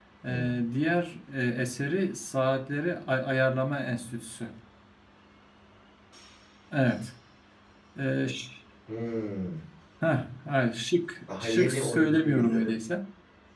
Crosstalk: present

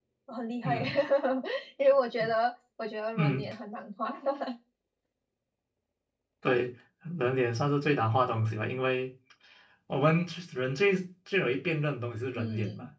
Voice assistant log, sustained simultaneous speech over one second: none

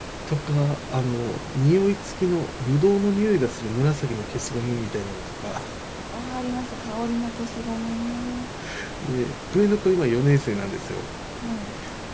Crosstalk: none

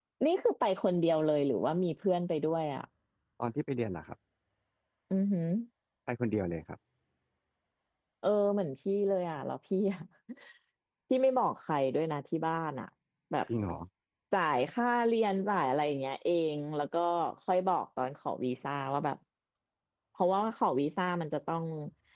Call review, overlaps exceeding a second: none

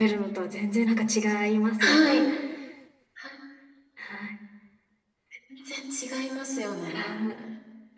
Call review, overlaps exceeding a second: none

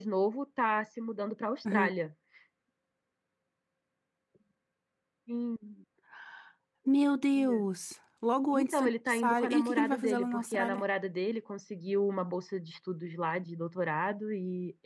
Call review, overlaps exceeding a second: present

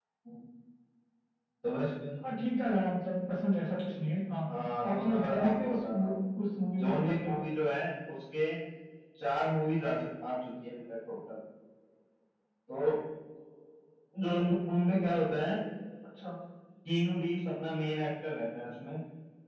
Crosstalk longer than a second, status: present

